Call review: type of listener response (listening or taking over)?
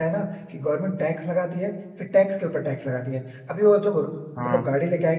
listening